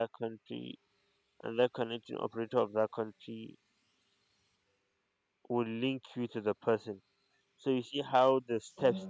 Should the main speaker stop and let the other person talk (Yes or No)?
No